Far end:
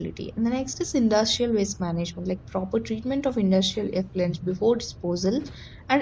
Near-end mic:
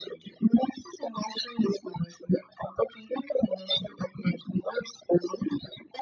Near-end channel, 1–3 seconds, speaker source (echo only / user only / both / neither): echo only